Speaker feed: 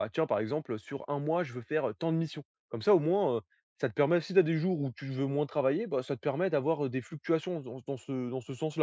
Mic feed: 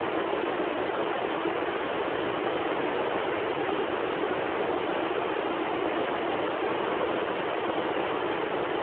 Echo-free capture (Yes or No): Yes